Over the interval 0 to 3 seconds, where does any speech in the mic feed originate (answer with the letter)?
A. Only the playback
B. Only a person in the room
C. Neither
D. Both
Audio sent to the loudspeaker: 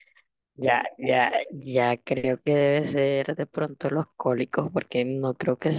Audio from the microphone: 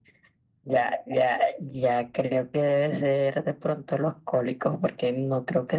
A